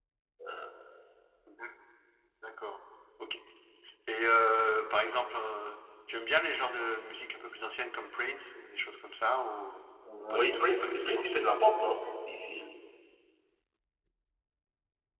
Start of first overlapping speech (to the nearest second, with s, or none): 10 s